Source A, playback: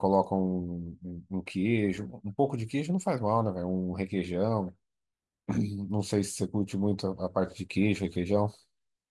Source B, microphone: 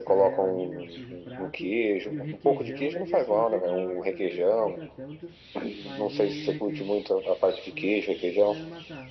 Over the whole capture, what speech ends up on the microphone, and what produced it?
both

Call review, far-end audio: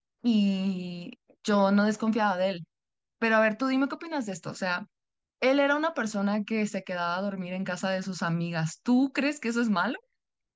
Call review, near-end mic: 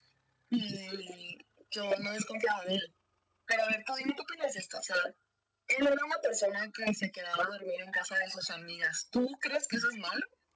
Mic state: echo only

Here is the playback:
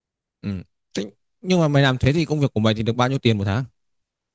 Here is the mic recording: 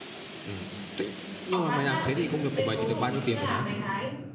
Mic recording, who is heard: both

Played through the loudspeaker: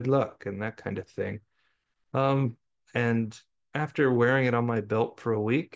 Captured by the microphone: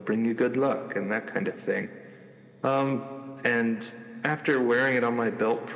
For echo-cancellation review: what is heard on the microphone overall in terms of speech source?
echo only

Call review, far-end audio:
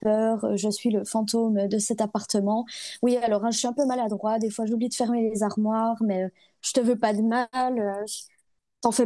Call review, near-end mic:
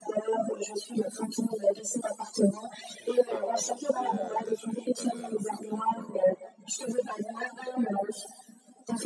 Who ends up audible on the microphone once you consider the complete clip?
both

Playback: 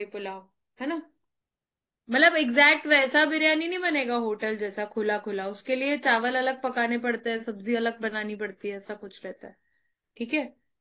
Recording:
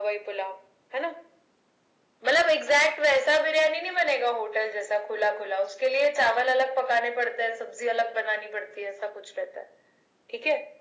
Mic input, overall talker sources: echo only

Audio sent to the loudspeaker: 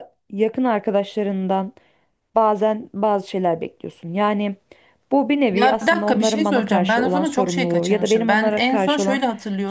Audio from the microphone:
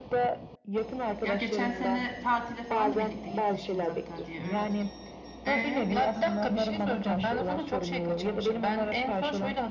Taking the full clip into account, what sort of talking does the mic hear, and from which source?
both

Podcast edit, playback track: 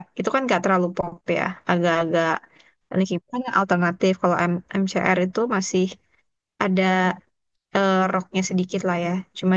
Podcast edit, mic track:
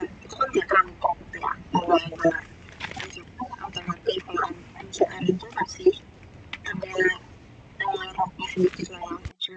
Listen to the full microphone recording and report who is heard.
echo only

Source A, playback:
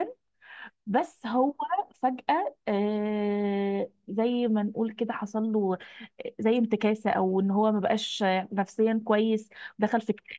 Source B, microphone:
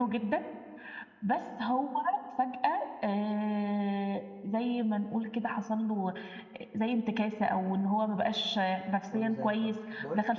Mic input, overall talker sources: both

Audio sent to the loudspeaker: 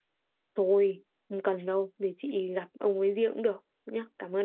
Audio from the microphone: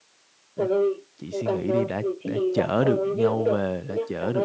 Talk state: both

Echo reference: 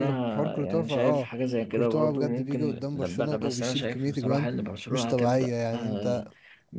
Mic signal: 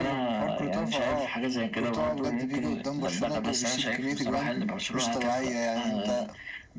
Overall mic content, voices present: echo only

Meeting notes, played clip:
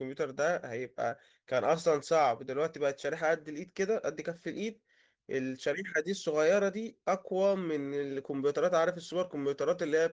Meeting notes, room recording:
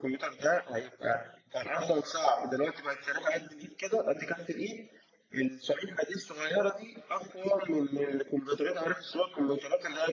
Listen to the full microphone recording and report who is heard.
echo only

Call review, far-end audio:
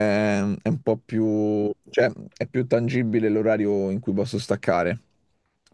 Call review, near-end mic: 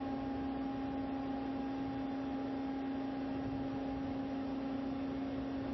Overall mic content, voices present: neither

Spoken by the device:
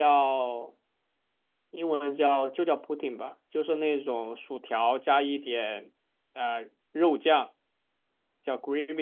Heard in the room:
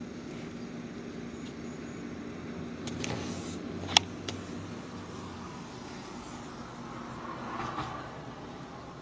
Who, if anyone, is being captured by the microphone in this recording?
neither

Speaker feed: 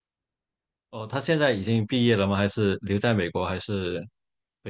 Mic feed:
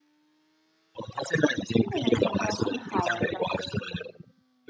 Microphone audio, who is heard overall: both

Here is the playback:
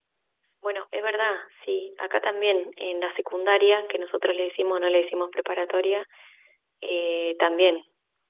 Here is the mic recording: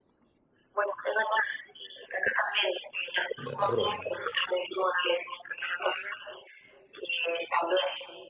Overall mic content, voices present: both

